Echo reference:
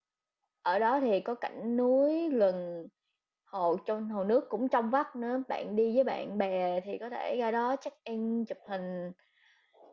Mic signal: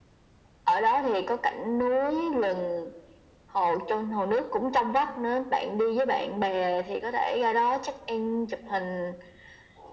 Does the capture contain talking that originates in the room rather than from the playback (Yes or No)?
No